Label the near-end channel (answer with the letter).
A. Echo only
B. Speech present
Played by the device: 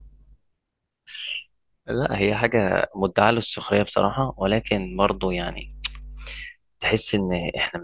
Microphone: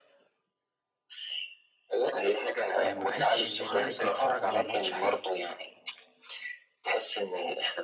B